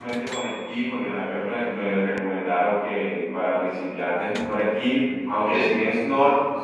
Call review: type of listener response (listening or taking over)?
listening